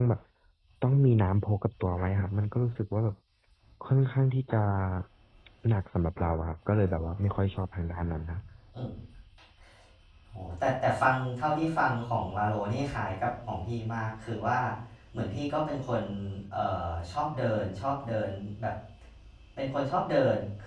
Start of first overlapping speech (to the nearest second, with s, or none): none